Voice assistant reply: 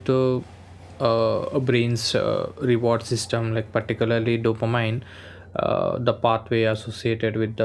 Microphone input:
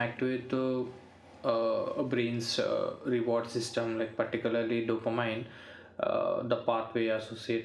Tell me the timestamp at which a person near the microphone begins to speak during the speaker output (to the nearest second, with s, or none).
none